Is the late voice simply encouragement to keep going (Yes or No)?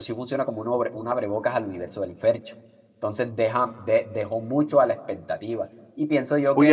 No